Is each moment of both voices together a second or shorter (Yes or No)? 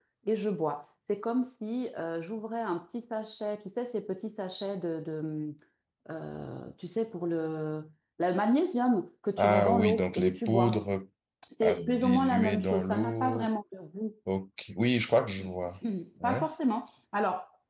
No